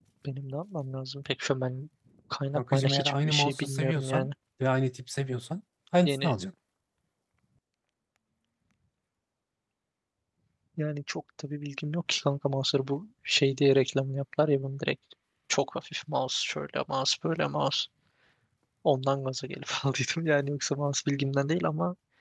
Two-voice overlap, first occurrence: 2.5 s

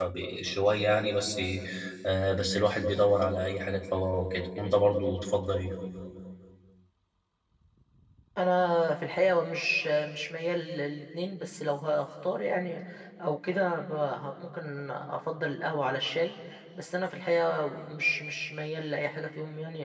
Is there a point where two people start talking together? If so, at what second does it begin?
none

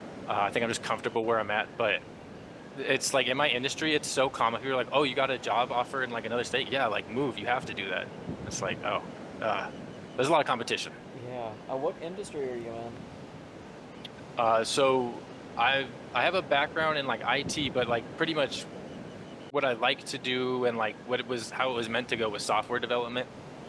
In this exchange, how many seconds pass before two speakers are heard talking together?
none

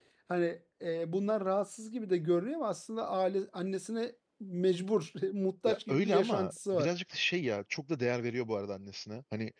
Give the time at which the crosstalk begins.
5.7 s

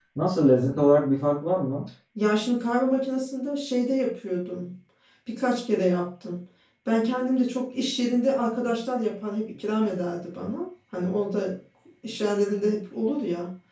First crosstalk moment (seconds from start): none

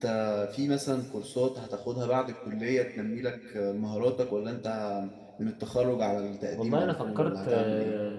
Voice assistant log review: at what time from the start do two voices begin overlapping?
6.6 s

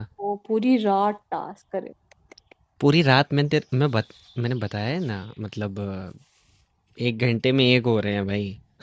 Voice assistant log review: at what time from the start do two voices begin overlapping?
none

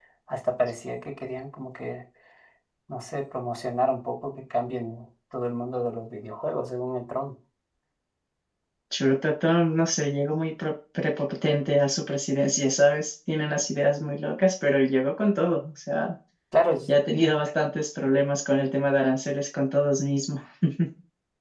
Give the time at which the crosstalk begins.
none

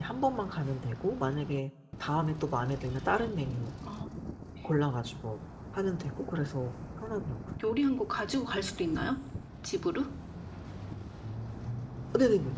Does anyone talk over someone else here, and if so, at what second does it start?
none

